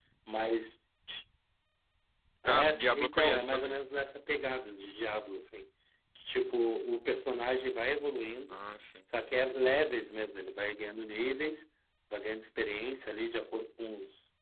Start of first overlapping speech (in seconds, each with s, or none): 2.5 s